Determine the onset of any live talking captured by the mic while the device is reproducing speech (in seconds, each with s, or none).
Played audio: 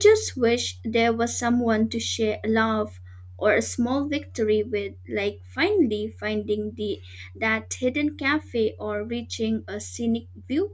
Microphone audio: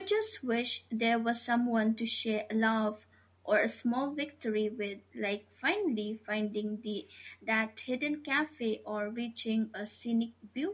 none